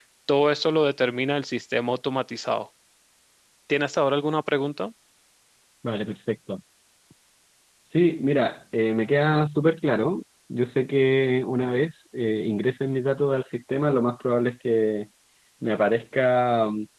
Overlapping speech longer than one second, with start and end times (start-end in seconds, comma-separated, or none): none